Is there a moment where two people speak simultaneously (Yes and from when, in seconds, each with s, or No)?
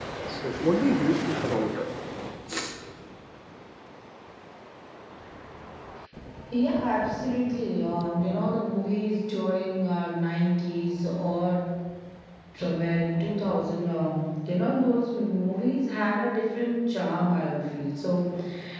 No